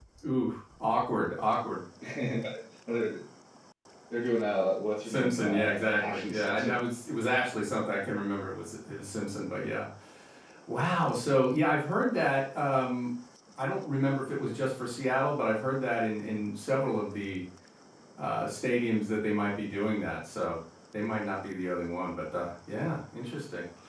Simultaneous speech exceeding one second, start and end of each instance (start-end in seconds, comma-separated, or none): 5.0-6.8